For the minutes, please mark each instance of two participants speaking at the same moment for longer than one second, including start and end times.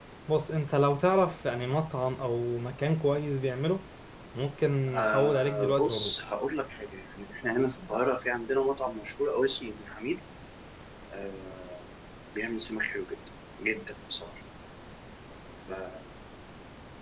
4.9-6.1

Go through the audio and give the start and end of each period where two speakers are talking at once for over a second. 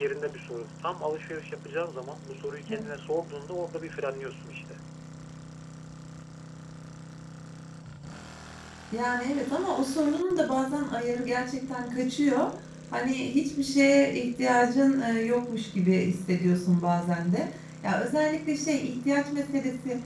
none

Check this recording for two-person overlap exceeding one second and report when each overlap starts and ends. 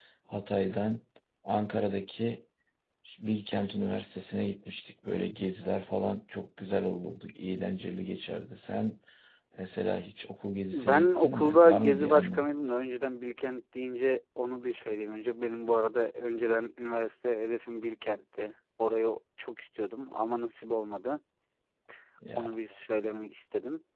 10.7-12.5

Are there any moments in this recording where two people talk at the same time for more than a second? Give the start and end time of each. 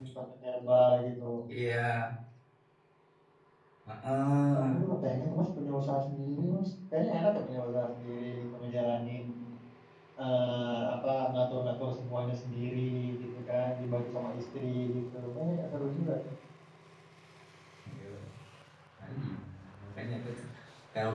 none

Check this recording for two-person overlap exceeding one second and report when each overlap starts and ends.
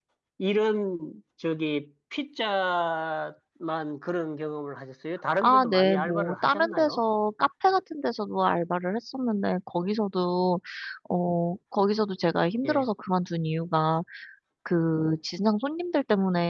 5.4-7.0

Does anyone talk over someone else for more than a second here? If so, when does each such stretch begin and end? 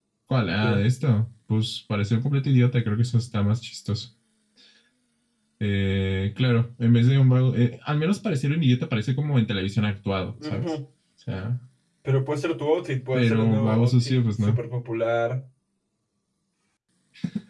13.1-14.6

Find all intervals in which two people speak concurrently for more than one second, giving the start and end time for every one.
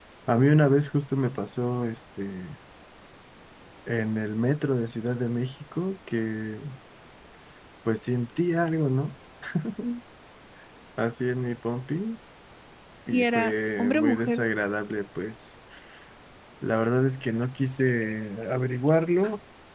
13.1-14.4

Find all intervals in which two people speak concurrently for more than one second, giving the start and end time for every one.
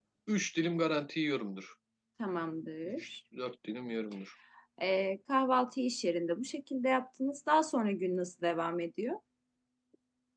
none

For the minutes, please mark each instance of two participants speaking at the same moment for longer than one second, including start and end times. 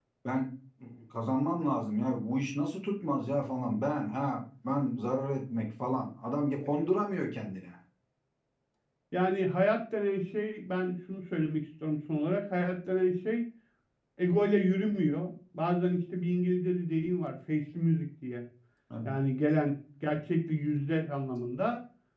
none

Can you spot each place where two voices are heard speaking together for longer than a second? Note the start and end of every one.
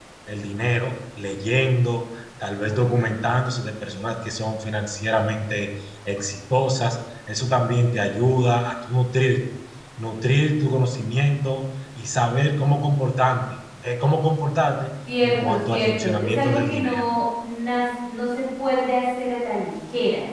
15.2-17.0

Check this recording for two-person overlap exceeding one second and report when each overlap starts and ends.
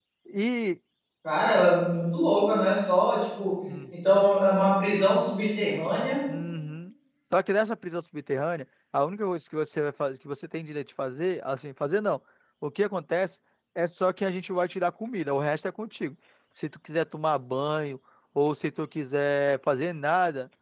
none

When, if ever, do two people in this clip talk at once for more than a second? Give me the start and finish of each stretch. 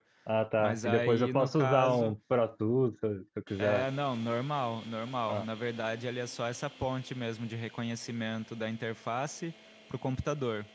0.6-2.1

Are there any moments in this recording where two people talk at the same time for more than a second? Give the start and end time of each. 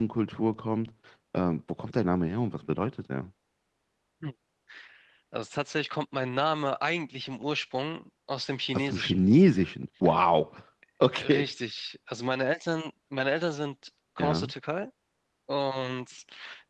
none

